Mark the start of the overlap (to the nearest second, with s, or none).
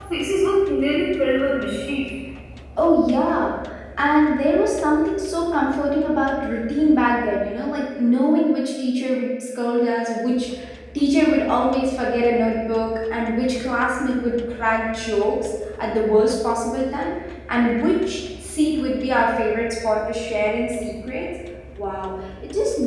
none